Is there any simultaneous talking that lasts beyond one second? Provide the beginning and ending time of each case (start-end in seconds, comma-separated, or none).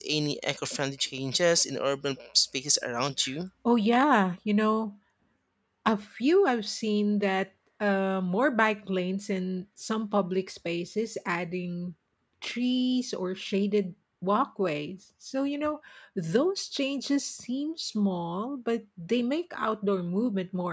none